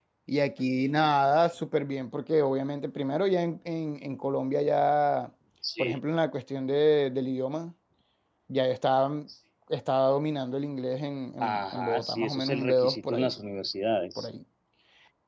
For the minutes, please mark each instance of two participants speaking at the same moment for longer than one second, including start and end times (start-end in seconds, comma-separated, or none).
11.4-13.3